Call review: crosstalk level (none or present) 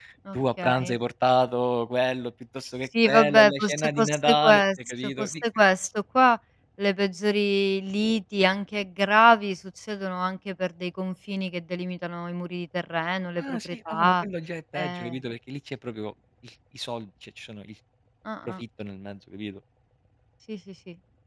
present